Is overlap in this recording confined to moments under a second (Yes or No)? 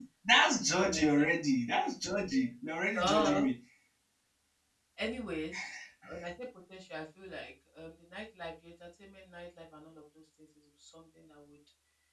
Yes